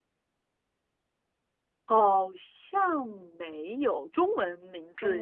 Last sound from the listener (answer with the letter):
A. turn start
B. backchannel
A